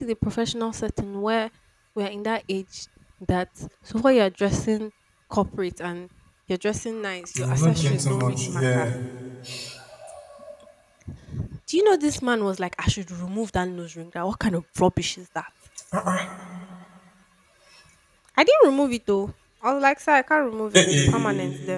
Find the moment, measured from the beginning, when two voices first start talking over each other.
7.4 s

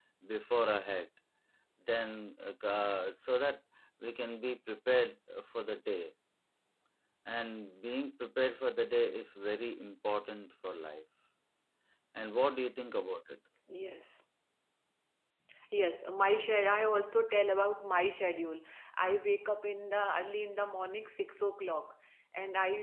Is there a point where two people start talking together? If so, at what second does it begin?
none

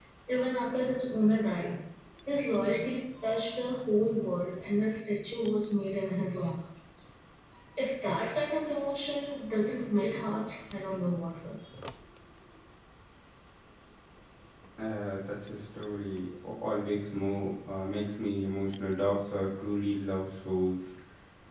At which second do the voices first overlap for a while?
none

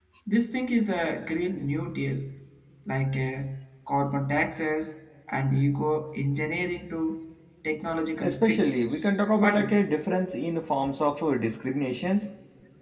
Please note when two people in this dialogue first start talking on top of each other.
8.2 s

